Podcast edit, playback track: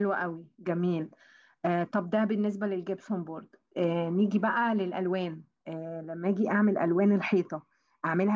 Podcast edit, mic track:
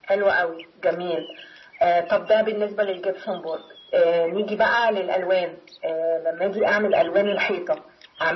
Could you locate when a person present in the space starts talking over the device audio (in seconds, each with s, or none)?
none